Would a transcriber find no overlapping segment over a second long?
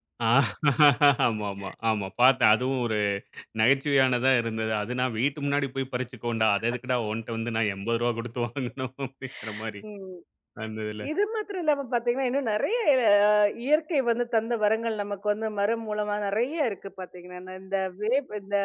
Yes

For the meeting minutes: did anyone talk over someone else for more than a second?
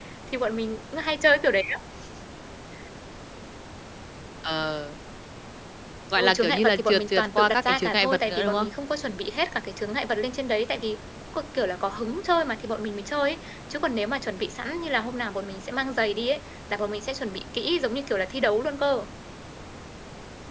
Yes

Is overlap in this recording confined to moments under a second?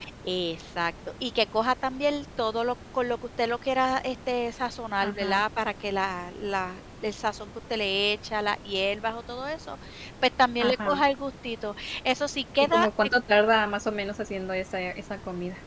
Yes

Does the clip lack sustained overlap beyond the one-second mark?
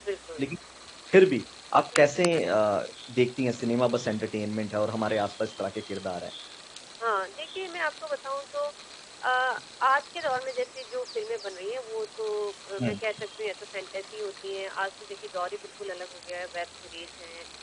Yes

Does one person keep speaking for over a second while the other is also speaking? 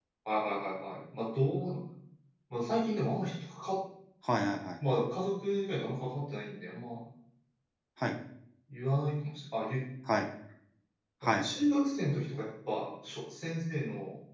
No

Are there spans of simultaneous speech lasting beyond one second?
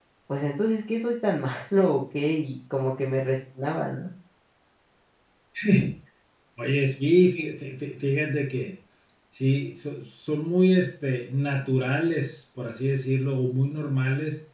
No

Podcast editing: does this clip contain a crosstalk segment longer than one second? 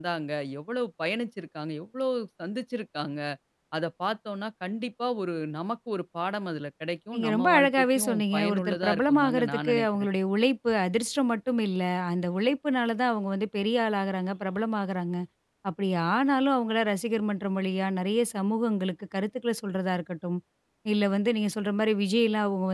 Yes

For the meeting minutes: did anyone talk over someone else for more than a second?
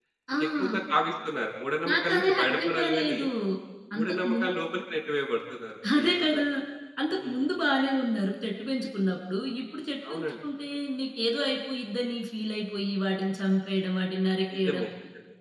Yes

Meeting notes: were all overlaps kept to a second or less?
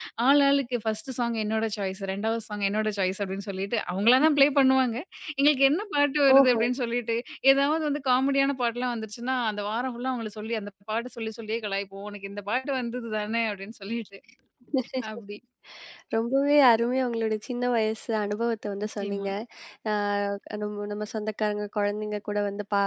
Yes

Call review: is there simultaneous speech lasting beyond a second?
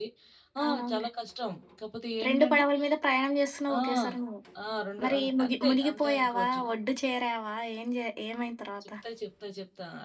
Yes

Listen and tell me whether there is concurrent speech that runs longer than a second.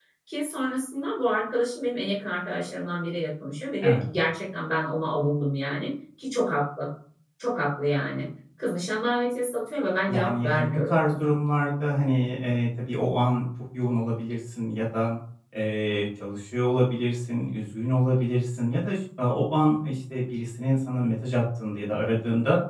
Yes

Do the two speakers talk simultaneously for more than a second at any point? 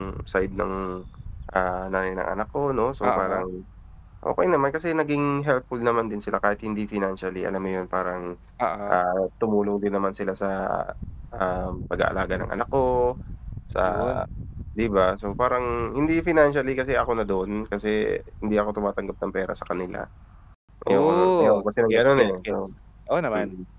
Yes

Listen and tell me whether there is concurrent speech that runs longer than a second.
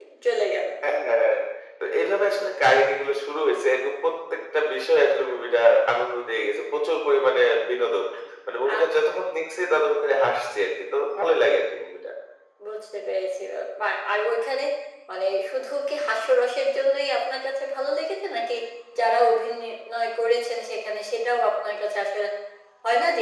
No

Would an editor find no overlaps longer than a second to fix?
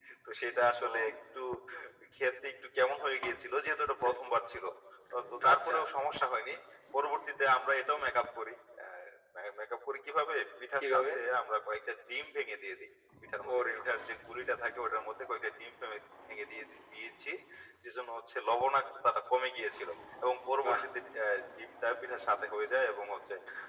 Yes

